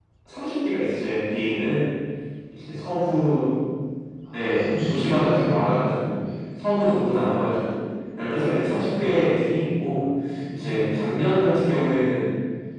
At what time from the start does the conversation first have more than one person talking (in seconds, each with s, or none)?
4.3 s